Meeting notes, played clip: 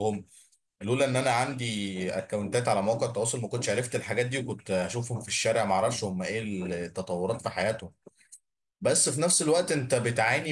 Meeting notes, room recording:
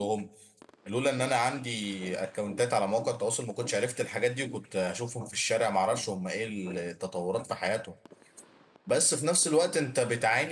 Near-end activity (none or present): none